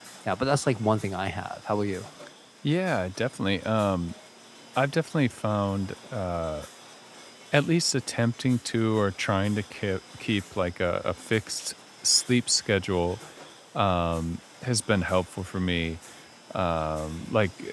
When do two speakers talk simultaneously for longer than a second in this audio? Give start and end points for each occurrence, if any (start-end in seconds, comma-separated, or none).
none